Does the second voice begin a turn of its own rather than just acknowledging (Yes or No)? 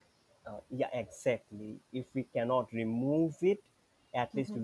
No